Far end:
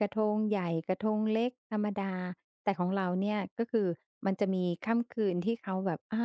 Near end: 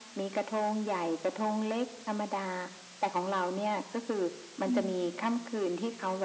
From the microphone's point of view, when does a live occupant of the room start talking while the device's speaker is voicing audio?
4.6 s

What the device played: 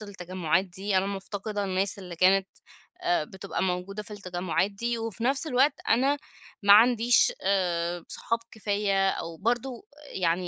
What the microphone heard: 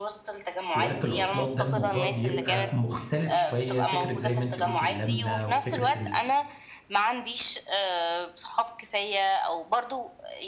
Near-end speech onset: 0.7 s

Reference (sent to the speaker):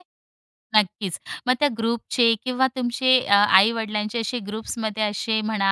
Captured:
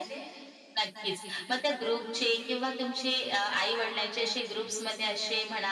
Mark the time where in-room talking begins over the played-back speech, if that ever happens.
none

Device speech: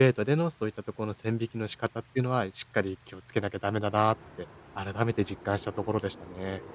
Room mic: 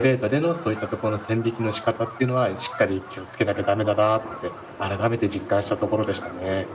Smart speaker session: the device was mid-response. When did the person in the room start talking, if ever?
none

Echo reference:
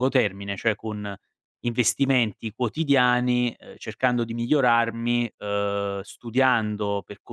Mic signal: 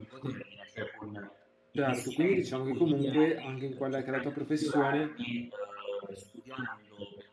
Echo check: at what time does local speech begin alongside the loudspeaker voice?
1.7 s

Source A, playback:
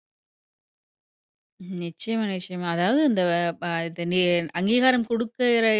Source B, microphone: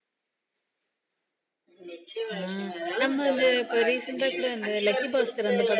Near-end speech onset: 2.3 s

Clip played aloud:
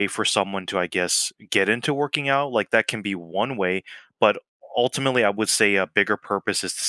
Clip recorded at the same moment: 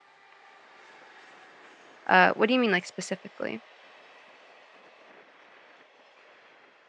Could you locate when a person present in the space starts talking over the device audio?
2.1 s

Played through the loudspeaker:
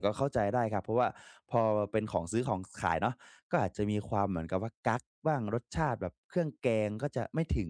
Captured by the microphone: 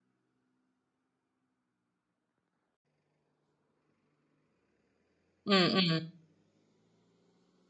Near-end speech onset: 5.5 s

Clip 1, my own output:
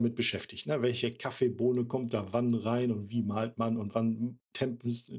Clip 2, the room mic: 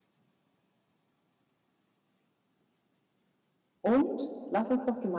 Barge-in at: 3.8 s

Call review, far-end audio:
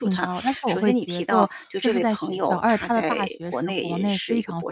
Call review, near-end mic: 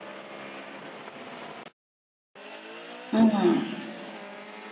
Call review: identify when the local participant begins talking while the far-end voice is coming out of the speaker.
3.1 s

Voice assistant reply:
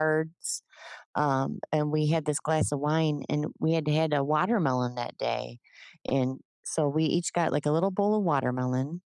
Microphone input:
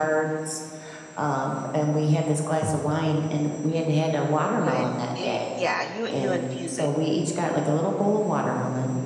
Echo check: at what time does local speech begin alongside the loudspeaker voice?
4.6 s

